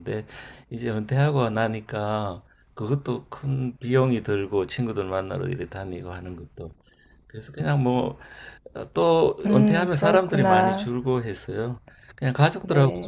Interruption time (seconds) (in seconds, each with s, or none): 9.4 s